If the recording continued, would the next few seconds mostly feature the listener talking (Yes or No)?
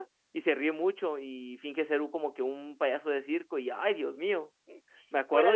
Yes